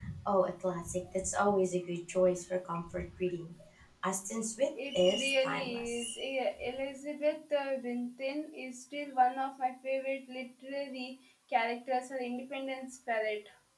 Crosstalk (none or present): present